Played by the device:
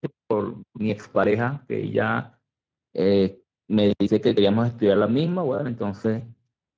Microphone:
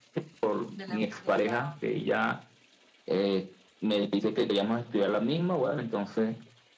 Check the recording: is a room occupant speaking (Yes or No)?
Yes